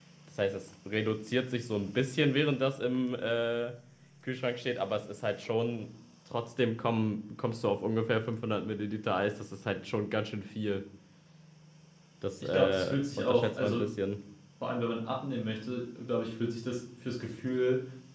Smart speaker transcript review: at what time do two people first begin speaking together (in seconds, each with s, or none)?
12.4 s